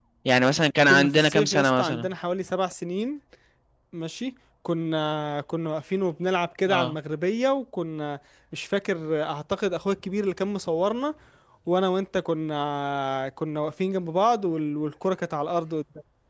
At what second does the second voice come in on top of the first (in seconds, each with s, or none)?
0.9 s